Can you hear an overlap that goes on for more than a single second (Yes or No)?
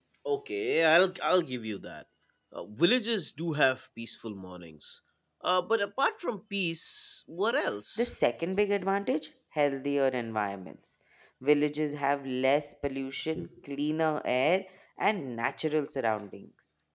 No